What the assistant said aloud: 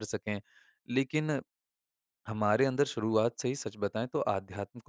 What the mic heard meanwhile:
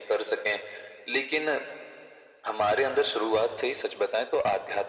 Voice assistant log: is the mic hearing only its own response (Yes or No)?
Yes